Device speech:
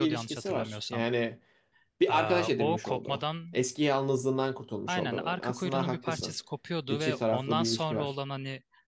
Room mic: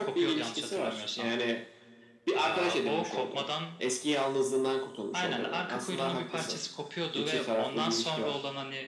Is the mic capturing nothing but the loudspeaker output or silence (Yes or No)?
Yes